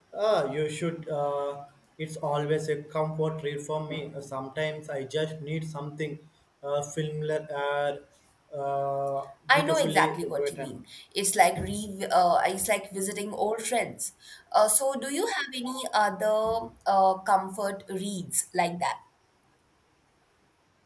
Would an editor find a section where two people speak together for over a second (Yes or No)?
Yes